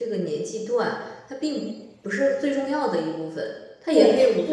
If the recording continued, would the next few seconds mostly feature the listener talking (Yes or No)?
Yes